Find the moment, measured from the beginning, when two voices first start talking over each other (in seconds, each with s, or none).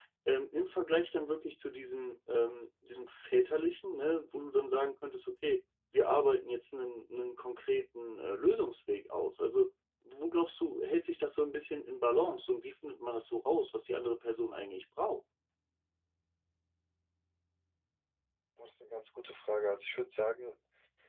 none